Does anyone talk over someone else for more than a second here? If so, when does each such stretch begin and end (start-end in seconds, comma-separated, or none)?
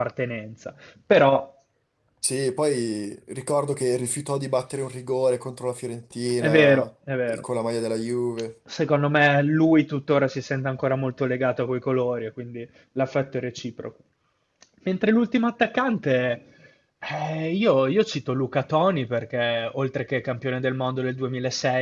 none